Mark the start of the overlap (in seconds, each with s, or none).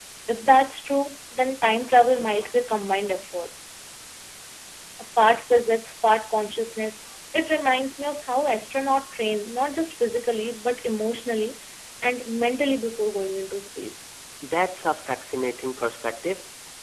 none